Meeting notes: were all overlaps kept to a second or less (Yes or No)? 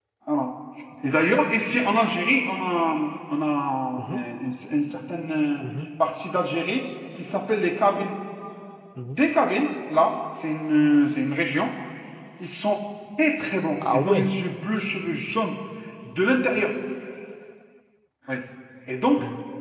Yes